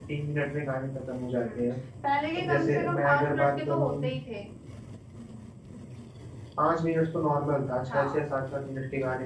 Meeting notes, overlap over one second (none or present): present